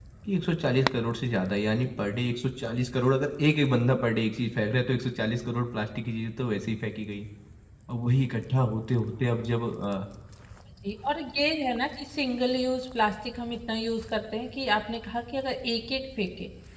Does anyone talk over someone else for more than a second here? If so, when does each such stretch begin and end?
none

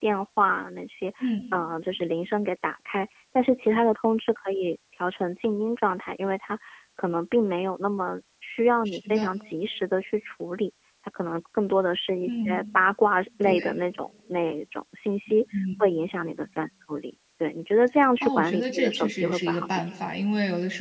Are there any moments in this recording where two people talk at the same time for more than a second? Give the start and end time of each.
18.2-19.9

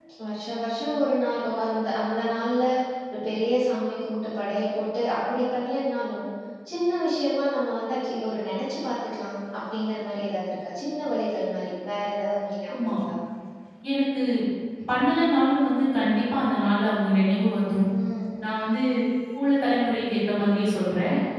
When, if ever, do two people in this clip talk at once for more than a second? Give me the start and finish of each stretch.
none

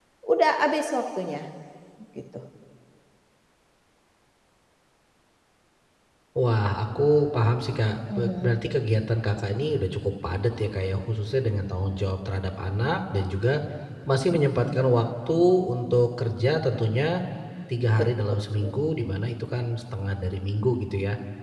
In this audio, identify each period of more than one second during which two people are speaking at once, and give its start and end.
none

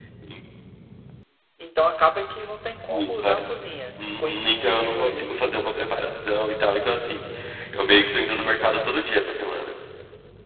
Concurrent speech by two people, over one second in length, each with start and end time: 4.0-5.5

